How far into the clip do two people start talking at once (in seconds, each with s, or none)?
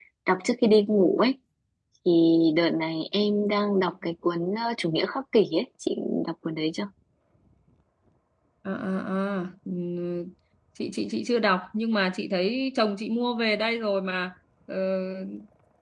none